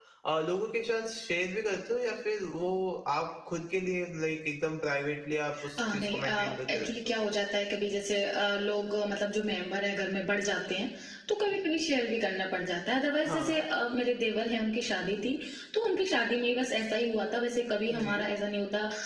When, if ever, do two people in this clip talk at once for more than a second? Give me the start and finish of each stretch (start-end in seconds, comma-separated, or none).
5.8-7.1